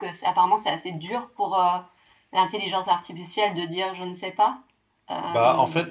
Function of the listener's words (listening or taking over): taking over